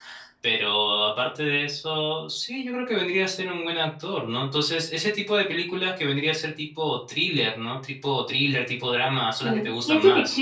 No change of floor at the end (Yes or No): No